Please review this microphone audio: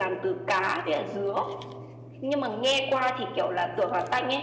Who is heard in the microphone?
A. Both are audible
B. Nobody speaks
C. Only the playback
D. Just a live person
C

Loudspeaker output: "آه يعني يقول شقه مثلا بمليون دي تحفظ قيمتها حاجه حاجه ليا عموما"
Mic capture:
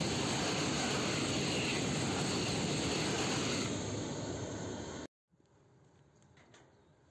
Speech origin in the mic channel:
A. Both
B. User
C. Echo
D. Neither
D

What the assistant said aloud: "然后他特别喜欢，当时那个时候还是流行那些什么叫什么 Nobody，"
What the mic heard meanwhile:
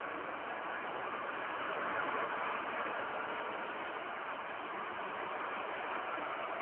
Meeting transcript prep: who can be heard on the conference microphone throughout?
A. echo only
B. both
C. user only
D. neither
D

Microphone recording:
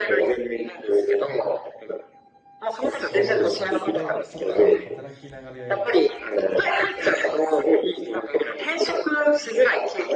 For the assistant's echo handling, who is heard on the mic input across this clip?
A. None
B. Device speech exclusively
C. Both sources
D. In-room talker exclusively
C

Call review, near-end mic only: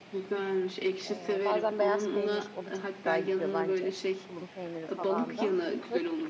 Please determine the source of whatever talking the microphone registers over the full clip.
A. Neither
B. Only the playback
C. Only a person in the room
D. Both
D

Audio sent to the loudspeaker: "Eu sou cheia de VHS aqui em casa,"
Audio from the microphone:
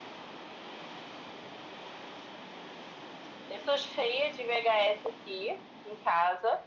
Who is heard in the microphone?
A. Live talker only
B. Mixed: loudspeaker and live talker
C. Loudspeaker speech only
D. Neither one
C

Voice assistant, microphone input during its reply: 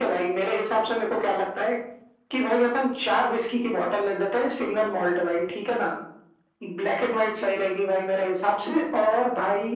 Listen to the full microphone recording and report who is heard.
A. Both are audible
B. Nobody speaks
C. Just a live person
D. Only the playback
D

